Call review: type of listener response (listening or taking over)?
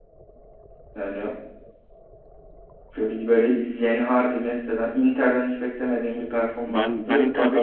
taking over